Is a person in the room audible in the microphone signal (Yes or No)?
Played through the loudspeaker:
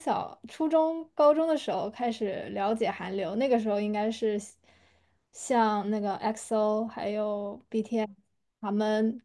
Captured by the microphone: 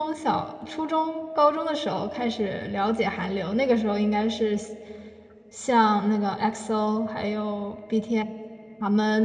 No